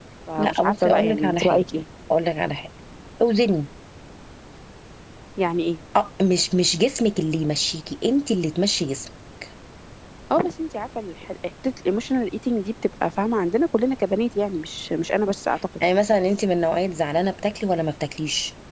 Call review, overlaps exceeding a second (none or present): present